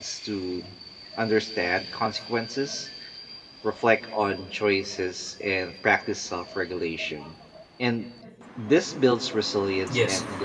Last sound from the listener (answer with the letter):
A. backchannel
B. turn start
A